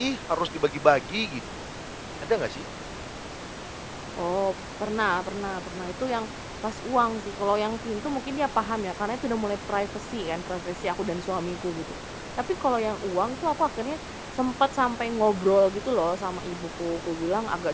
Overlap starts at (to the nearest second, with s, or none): none